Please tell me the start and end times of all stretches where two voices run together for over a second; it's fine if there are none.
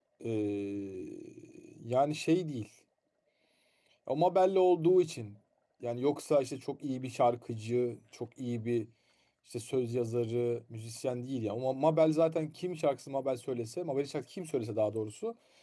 none

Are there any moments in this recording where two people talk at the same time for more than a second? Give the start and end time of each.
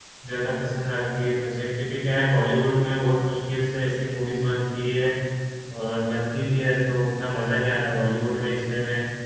none

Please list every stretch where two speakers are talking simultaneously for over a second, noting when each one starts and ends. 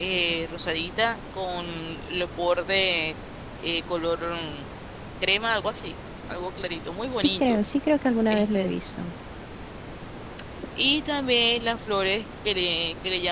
none

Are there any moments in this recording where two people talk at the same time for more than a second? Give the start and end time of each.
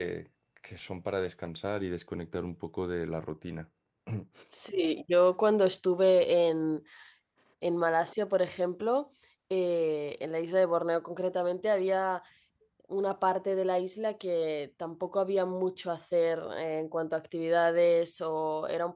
none

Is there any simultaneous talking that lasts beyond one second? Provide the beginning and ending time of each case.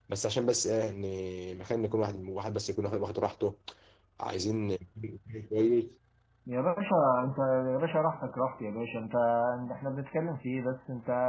none

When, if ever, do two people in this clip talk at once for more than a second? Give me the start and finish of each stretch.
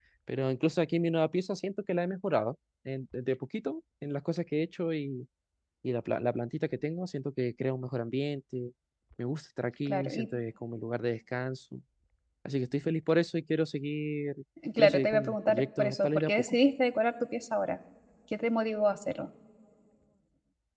14.8-16.6

